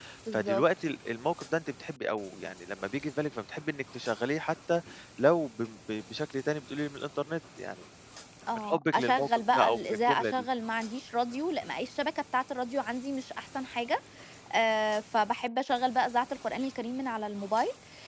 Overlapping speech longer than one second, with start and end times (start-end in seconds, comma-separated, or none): 8.6-10.4